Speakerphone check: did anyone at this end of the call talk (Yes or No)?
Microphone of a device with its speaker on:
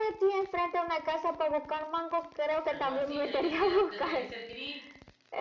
Yes